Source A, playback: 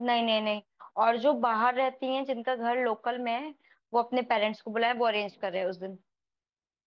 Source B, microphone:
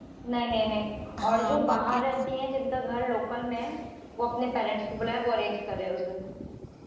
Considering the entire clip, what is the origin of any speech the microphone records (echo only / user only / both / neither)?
both